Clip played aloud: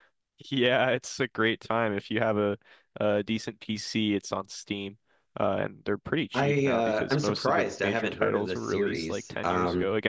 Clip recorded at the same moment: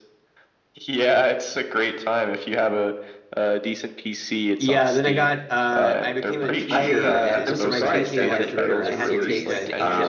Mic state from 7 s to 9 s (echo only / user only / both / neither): both